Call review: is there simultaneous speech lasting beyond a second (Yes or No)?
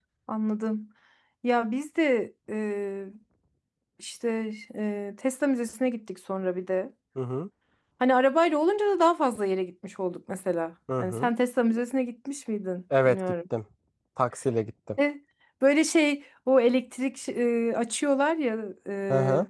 No